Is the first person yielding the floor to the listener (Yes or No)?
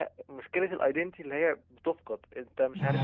Yes